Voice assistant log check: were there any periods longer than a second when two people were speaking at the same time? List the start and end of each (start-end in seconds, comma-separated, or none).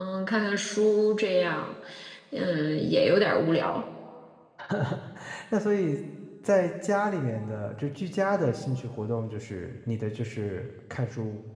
none